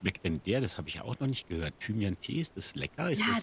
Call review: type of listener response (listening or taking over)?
taking over